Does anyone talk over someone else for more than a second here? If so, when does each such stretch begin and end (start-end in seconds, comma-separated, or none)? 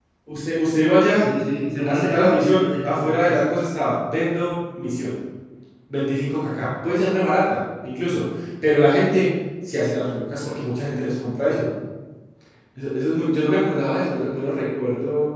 1.9-3.4